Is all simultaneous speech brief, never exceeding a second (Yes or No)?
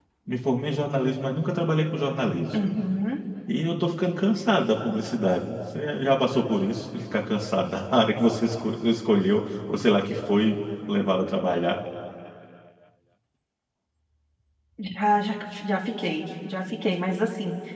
Yes